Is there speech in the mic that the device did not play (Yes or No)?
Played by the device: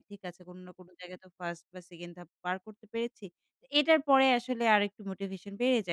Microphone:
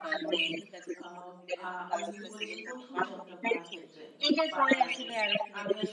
Yes